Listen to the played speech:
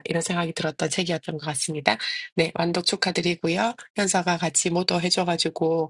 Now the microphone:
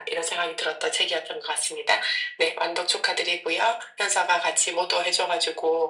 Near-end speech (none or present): none